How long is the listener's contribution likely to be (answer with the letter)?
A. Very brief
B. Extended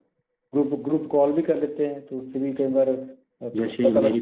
B